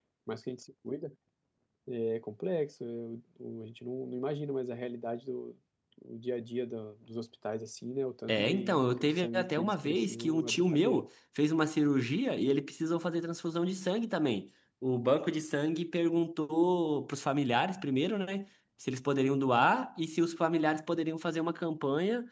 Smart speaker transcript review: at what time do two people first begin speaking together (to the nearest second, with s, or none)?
8 s